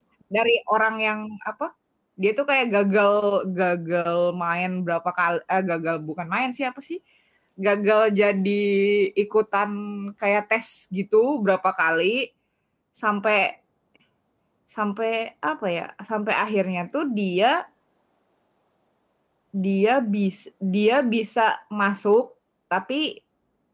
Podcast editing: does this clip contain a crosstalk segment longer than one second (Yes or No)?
No